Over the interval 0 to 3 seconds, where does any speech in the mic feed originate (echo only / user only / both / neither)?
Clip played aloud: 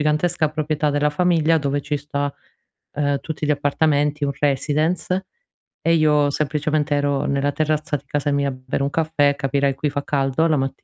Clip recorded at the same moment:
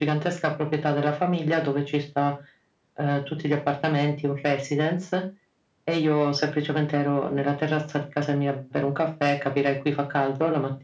echo only